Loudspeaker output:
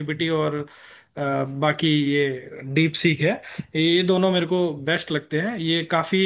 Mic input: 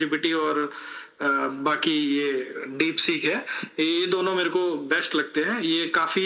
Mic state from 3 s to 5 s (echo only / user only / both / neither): echo only